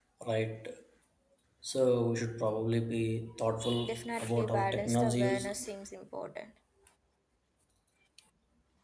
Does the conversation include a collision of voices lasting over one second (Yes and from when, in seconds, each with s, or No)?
Yes, from 3.8 s